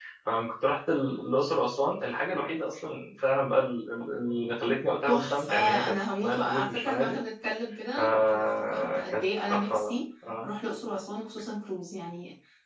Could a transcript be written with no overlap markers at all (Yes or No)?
No